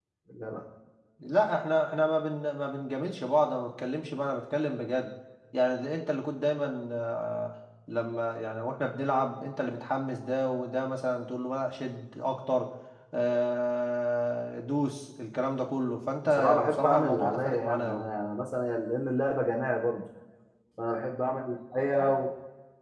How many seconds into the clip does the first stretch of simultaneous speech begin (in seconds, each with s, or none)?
16.2 s